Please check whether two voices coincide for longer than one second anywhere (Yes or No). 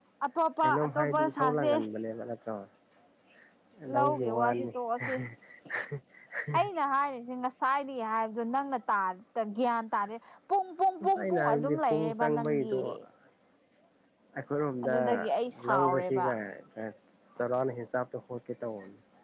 Yes